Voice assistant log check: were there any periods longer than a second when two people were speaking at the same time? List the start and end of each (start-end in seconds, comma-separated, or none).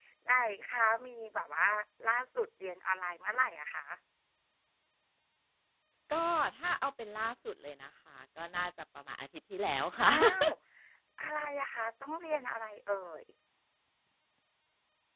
none